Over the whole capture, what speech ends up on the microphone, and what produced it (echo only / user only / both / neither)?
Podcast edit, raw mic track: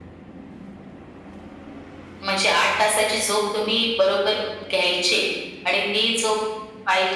echo only